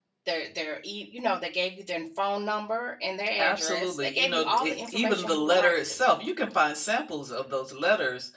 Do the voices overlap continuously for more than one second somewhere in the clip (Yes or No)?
Yes